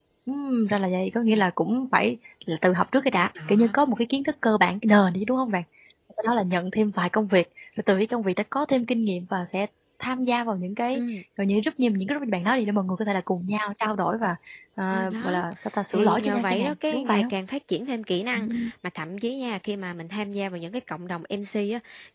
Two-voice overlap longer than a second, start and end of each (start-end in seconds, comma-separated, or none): 15.9-17.3